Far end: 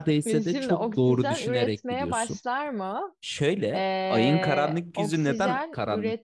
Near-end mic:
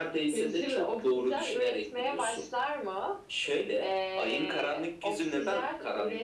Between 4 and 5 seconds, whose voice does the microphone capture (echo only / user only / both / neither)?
echo only